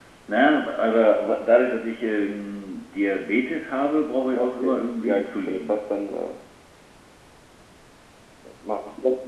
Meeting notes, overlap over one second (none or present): present